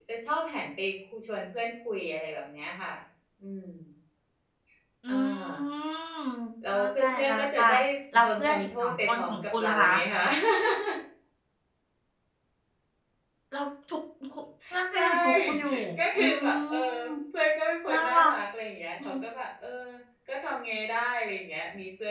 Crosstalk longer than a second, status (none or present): present